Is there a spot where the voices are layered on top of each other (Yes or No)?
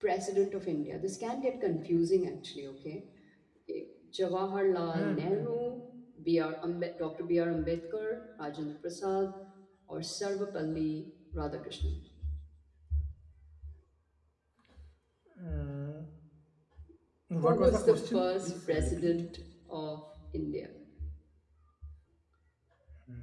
Yes